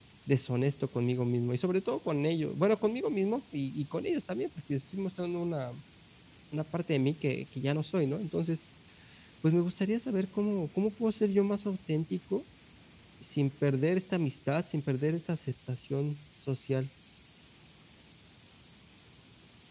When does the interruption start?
none

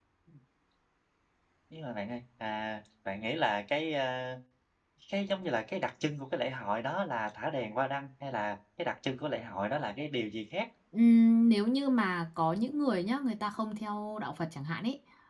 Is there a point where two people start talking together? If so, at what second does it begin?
none

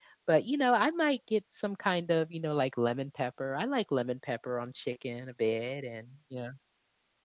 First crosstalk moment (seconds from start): none

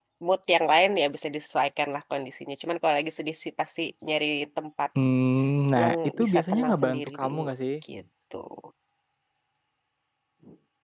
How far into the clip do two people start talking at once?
6 s

